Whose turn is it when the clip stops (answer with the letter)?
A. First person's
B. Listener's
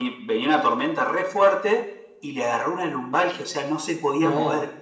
A